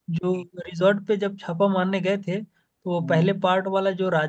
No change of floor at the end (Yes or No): Yes